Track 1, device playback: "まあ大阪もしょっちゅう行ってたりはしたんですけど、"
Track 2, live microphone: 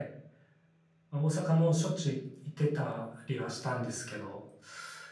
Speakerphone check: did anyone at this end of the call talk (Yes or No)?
No